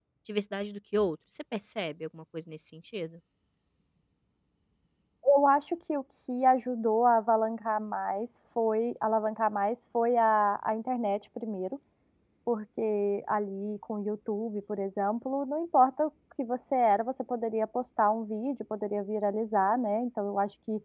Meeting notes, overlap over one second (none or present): none